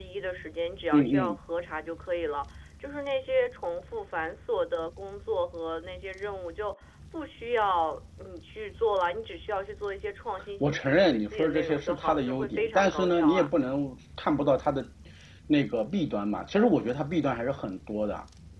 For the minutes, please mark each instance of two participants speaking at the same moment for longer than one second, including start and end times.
10.6-13.5

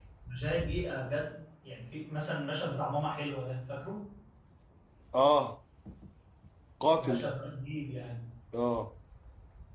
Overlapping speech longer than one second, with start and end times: none

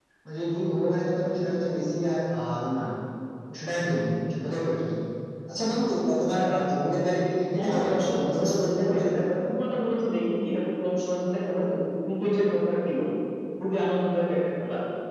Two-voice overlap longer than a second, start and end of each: 7.5-9.2

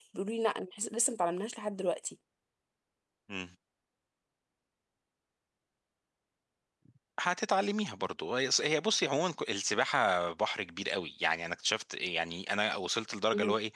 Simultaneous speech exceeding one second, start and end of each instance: none

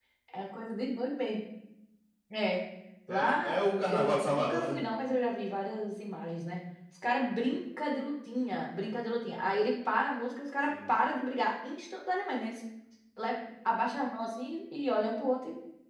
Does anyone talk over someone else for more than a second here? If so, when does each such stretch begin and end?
3.1-4.8

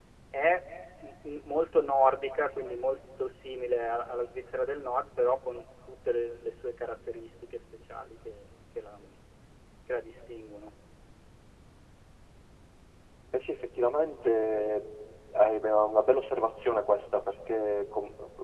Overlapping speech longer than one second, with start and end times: none

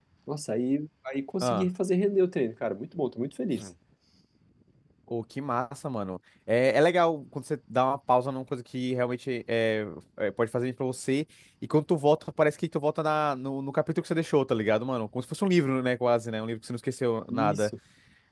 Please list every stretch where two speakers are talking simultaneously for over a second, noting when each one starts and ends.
none

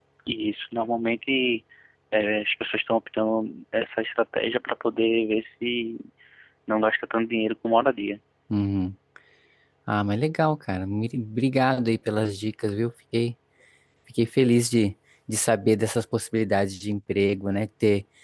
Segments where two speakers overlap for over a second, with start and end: none

